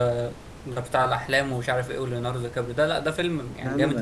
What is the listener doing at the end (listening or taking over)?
listening